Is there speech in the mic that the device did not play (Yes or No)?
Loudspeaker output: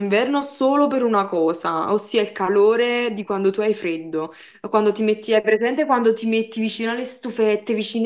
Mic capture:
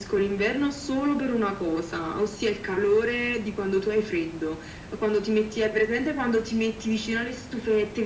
No